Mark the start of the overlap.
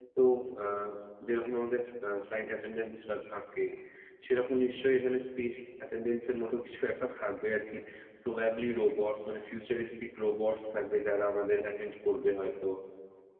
none

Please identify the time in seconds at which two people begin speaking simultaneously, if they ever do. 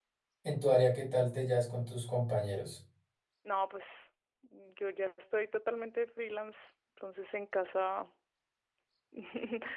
none

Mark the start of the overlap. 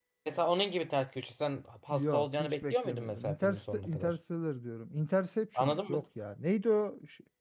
1.9 s

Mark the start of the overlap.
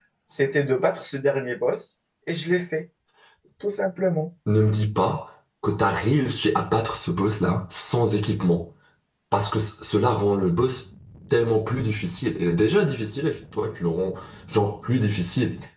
none

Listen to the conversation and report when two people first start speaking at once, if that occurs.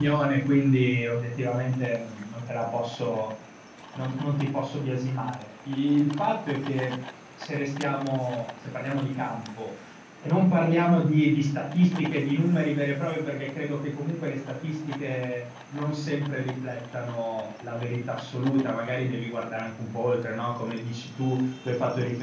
none

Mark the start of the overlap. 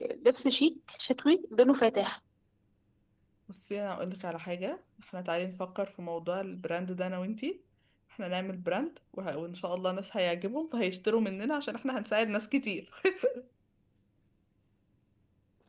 none

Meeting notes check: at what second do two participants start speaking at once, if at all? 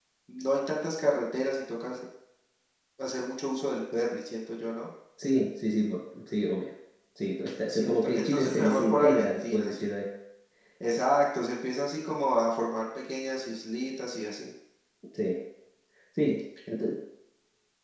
7.7 s

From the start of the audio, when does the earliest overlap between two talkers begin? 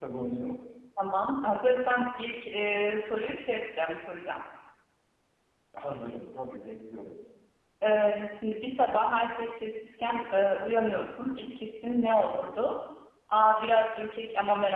none

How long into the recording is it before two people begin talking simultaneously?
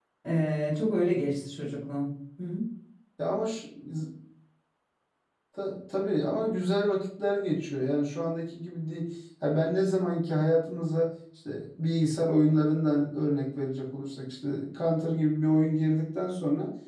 none

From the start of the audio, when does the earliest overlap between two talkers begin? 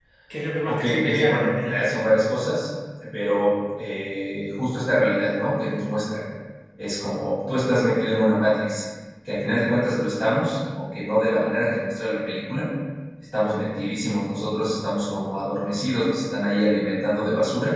0.6 s

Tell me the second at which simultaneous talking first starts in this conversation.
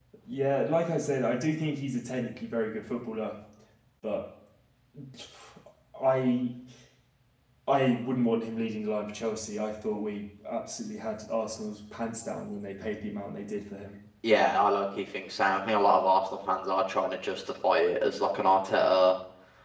none

